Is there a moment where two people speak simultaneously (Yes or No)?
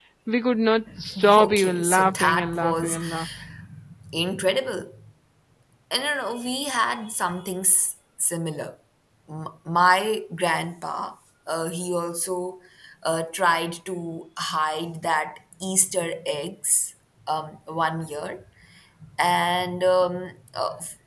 Yes